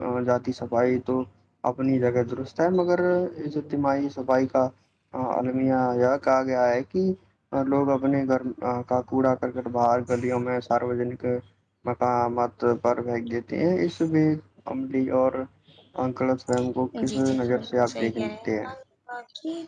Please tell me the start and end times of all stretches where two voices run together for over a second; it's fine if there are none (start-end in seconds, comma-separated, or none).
17.1-18.7